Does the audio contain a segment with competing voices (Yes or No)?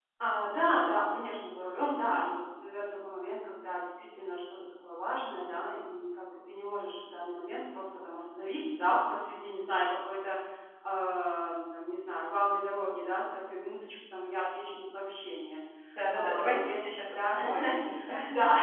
Yes